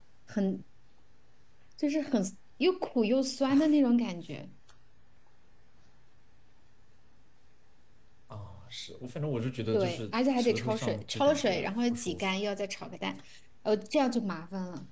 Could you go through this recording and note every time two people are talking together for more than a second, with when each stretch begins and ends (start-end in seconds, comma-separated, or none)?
9.7-12.3